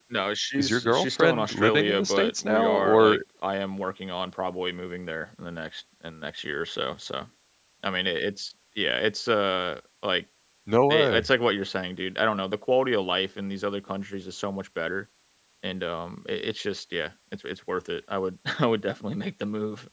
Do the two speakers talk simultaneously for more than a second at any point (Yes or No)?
Yes